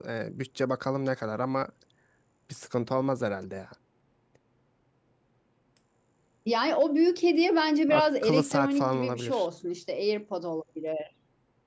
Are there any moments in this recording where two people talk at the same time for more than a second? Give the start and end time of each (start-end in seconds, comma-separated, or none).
7.9-9.5